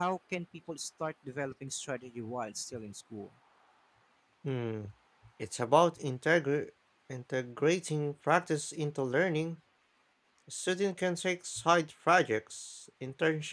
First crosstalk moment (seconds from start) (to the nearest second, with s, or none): none